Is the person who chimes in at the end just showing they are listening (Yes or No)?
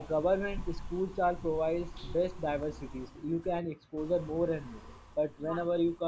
Yes